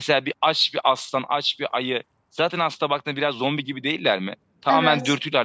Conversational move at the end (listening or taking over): listening